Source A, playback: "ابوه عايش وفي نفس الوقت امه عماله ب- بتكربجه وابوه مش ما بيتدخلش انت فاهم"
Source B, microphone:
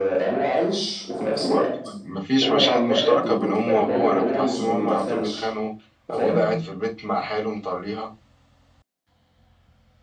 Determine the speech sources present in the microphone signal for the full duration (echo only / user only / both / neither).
both